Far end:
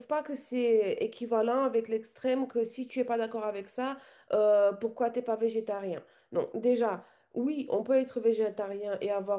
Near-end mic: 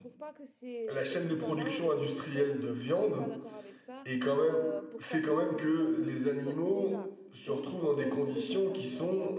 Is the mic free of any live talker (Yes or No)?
No